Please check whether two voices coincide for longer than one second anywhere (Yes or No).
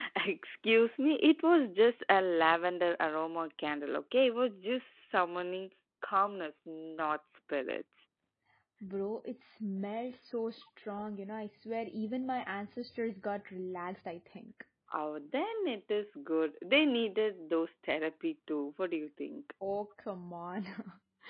No